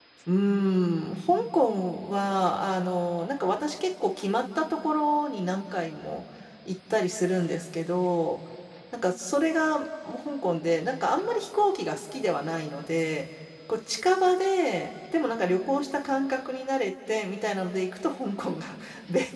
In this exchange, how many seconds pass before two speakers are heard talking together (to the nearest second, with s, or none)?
none